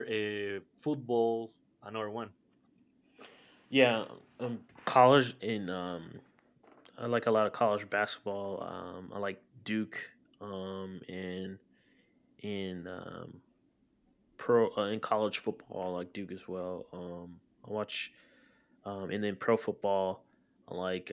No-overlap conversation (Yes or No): Yes